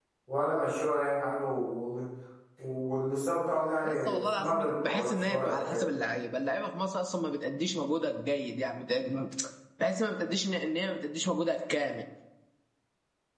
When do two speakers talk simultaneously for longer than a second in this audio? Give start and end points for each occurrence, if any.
3.8-5.9

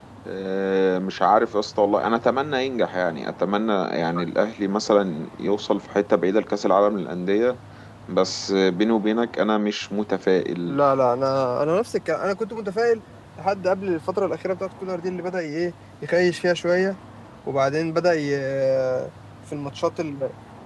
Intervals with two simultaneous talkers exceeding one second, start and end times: none

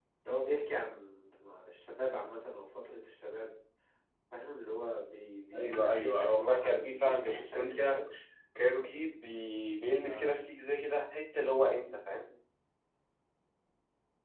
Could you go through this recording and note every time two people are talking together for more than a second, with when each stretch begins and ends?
5.5-8.0

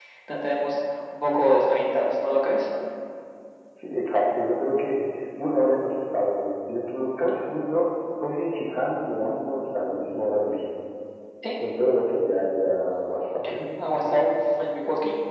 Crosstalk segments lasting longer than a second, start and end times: none

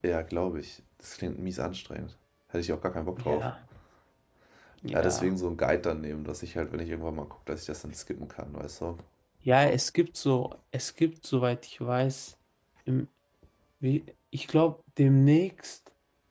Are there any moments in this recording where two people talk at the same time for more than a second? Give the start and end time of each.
none

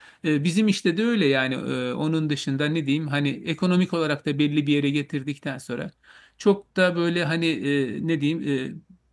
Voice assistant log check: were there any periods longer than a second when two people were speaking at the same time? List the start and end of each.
none

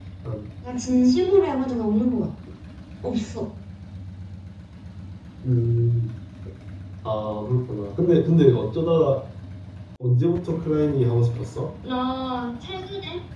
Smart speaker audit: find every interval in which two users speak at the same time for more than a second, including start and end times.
none

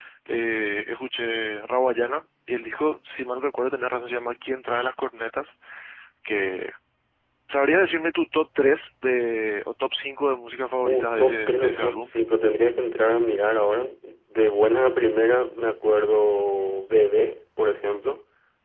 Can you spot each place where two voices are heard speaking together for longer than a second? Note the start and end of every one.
10.8-12.1

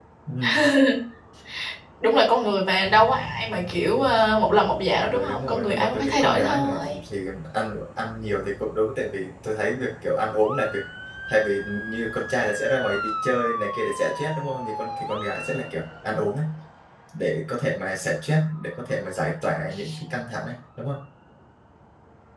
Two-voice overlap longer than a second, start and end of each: 5.0-7.0

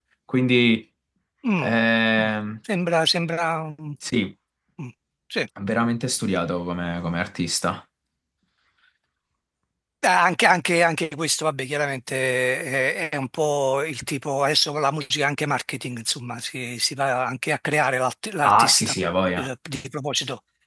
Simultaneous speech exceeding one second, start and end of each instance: none

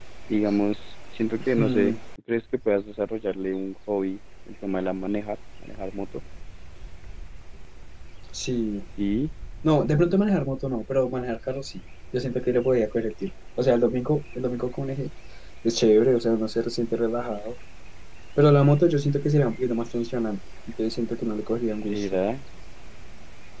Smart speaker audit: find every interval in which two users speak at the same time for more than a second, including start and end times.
none

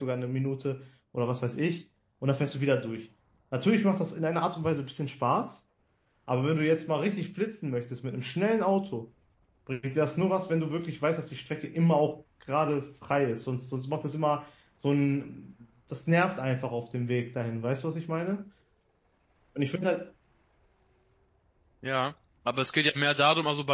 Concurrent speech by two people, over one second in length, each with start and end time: none

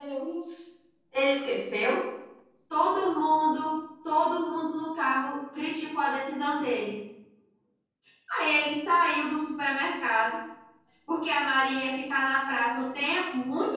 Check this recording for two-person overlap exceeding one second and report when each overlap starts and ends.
none

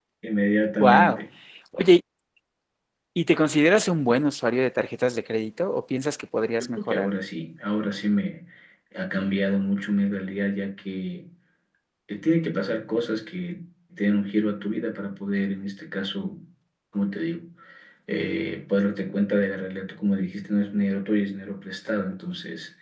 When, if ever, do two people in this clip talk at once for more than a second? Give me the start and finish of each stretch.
none

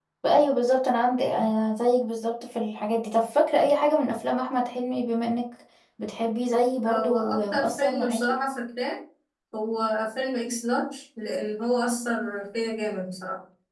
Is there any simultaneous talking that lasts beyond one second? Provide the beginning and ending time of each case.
6.9-8.3

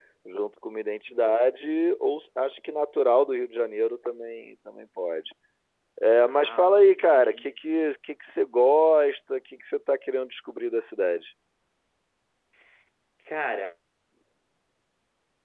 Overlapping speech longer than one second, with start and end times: 6.2-7.5

